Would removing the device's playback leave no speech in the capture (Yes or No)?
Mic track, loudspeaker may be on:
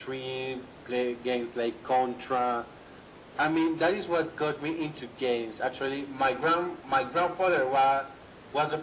Yes